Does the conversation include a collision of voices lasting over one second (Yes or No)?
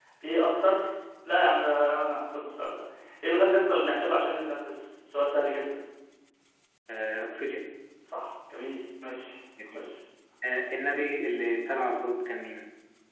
No